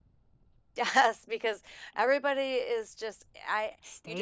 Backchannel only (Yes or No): No